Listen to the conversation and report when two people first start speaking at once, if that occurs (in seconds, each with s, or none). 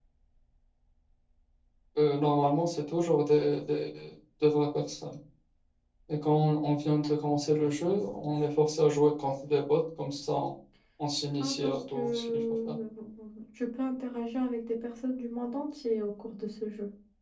11.4 s